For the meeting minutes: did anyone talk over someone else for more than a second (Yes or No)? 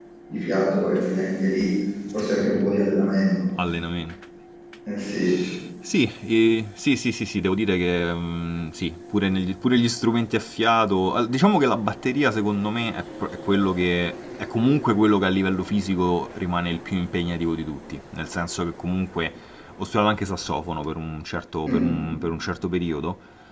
No